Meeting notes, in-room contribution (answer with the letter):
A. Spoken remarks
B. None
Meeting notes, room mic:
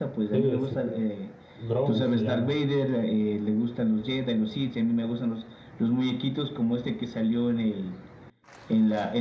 A